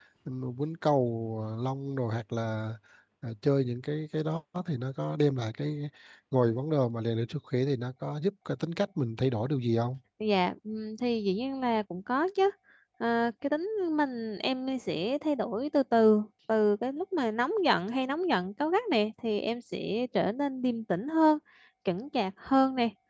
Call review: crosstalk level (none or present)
none